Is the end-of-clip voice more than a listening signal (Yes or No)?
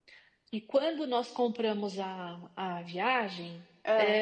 No